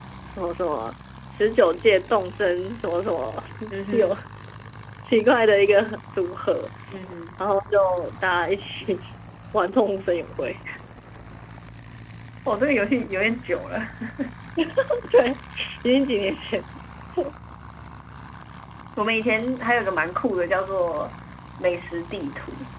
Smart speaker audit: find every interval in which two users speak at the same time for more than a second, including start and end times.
none

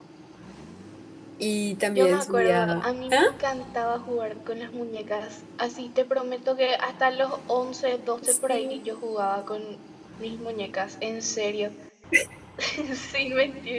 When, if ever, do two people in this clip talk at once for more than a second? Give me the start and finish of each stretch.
2.0-3.2

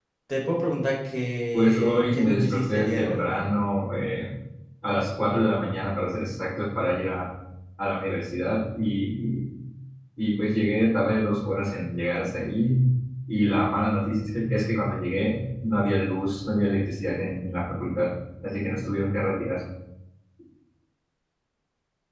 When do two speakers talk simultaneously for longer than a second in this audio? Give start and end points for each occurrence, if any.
1.5-3.2

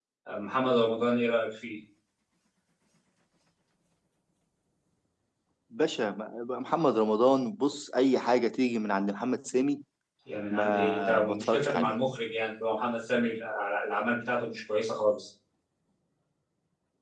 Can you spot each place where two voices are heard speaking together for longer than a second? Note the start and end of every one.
10.5-11.9

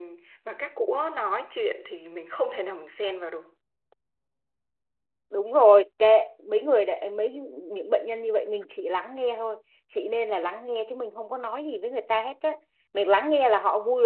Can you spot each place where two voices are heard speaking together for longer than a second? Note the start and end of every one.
none

